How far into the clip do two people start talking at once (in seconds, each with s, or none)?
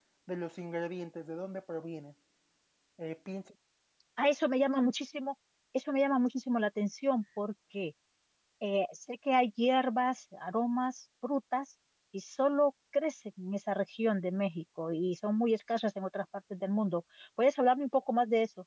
none